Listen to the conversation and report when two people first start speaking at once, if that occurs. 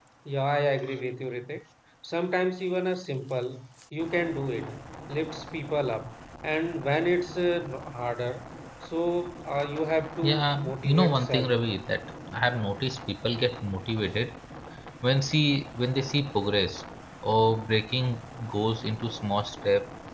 10.2 s

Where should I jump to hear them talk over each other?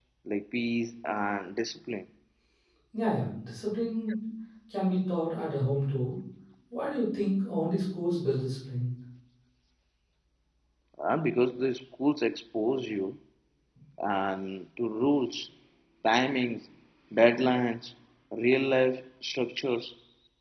none

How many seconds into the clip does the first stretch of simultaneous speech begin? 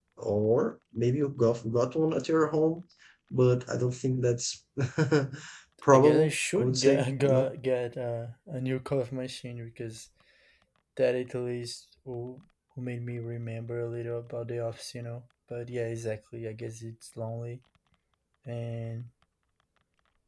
5.9 s

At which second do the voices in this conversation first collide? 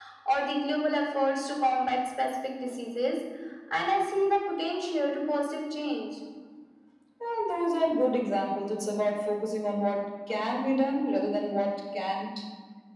none

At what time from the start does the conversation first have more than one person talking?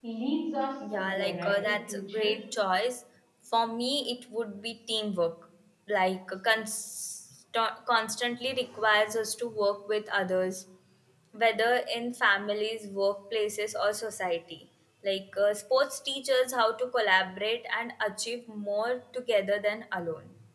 0.9 s

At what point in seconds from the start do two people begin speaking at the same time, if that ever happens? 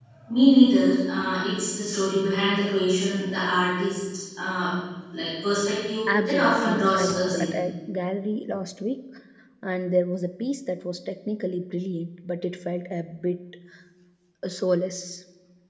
6.1 s

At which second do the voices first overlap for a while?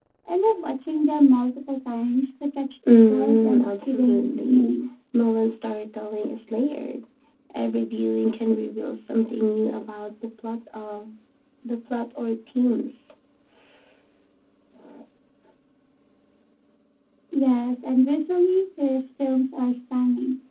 2.9 s

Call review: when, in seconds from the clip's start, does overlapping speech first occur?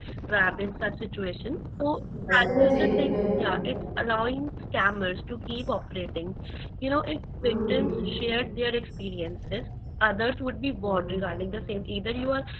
2.3 s

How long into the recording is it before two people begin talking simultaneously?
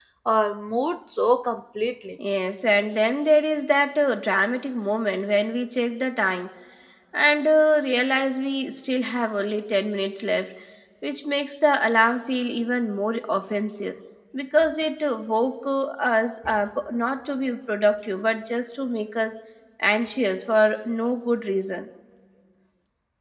none

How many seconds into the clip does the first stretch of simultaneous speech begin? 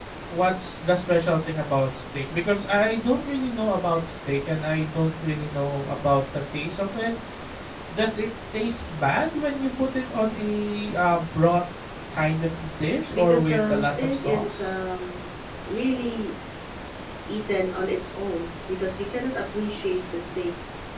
13.1 s

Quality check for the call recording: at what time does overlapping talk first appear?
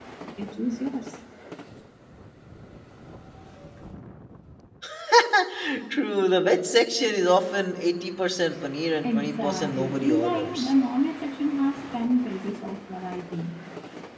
9.0 s

